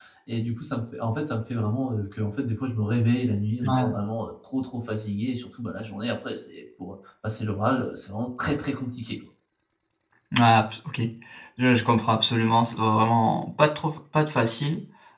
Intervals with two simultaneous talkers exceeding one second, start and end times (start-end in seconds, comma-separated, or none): none